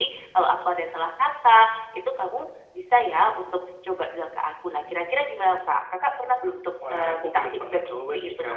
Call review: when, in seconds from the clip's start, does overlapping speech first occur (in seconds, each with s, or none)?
6.8 s